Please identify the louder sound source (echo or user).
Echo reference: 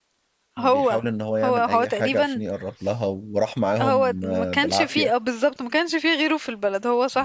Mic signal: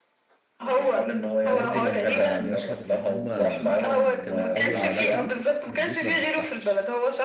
echo